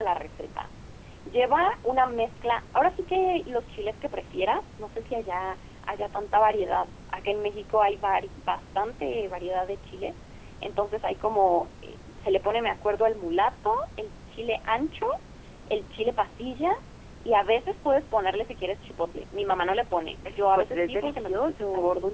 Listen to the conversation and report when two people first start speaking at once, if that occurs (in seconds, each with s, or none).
20.2 s